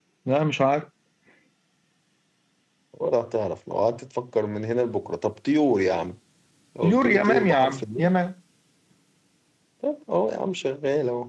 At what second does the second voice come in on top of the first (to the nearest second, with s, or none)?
7 s